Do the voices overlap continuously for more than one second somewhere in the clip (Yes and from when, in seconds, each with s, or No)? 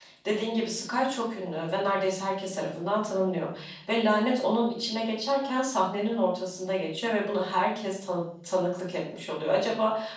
No